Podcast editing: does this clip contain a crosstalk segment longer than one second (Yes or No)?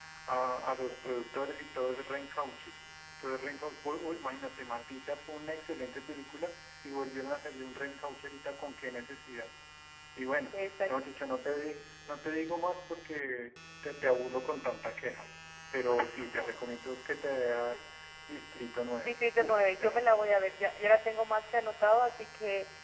Yes